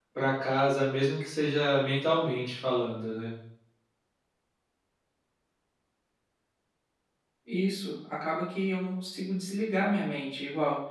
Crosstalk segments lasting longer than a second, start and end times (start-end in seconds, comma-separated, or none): none